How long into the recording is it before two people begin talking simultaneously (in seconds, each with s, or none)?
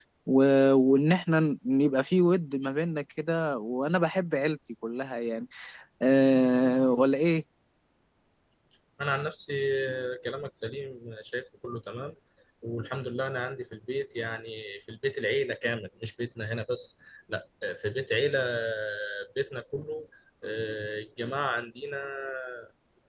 none